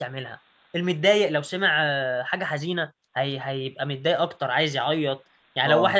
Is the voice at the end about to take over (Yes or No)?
No